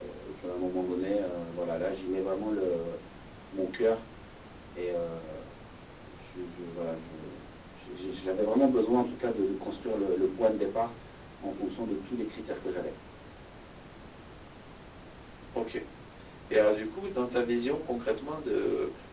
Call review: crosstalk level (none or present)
none